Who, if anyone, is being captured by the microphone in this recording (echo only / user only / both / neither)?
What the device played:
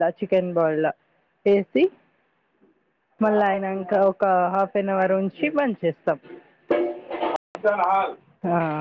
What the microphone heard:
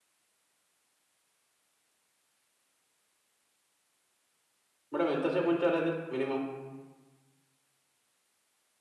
user only